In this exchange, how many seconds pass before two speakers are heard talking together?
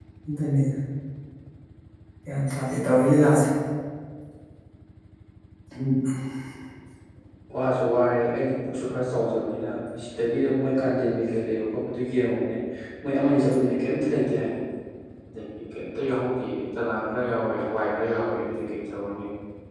none

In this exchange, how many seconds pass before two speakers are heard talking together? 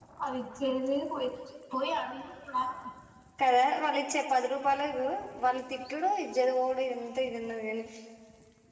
none

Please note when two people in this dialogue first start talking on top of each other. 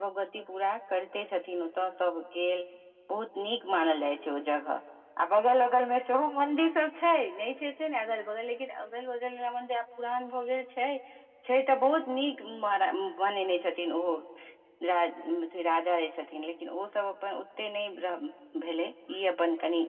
none

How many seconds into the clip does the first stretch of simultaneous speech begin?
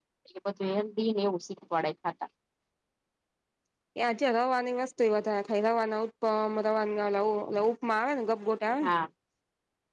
none

